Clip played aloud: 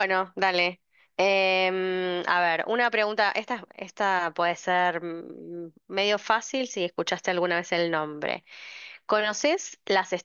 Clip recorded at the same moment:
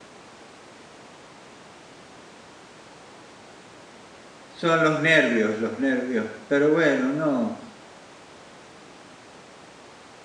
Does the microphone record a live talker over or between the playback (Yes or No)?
Yes